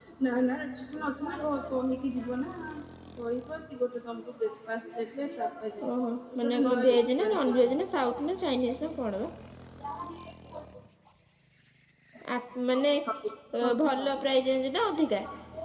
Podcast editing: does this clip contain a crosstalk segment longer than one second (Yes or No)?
Yes